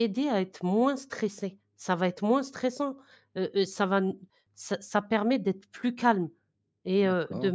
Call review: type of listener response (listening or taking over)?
listening